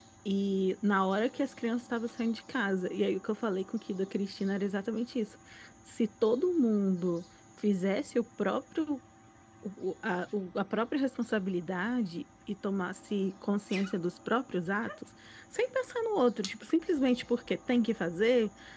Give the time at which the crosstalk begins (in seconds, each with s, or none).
none